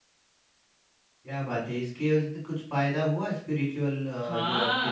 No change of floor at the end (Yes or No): No